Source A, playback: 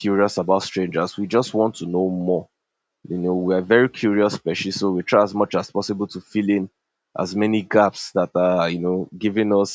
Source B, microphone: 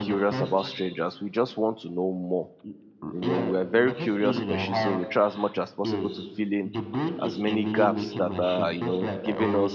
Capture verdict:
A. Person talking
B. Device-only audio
A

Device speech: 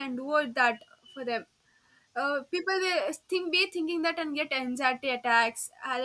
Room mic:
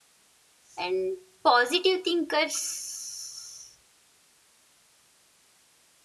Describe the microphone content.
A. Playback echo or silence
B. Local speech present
B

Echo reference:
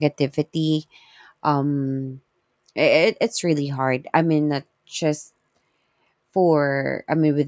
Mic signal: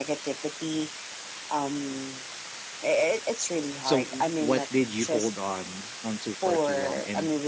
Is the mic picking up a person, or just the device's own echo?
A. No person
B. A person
B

